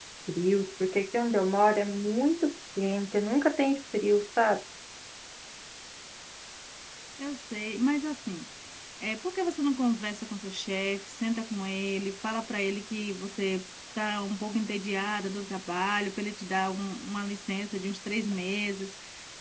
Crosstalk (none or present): none